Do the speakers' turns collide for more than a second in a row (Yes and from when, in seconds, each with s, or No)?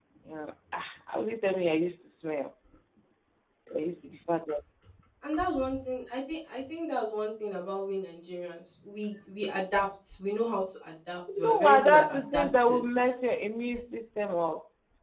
Yes, from 11.3 s